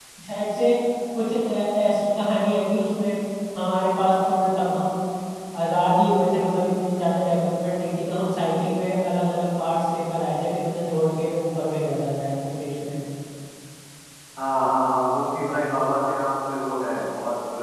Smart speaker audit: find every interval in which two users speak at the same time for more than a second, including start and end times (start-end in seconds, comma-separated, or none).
none